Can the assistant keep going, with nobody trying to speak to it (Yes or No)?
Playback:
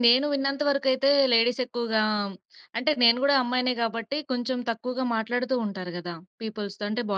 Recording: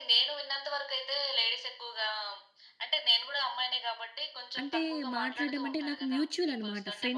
No